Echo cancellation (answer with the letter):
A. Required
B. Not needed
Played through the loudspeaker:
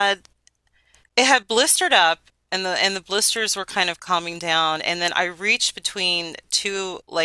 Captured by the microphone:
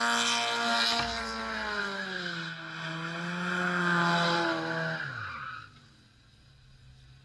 B